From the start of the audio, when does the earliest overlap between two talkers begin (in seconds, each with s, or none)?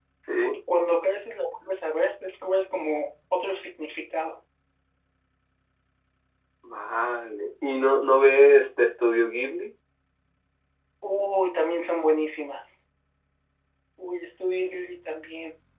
none